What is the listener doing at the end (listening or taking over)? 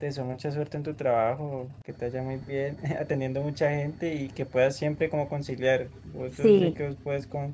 listening